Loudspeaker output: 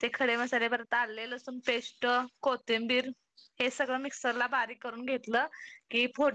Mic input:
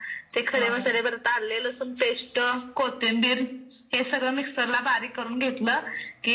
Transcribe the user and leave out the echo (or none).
हा हा